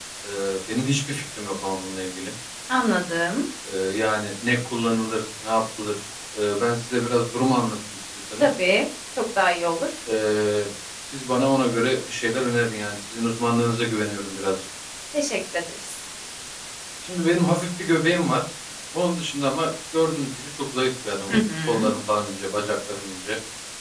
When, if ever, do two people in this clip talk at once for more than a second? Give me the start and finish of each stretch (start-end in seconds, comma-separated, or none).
none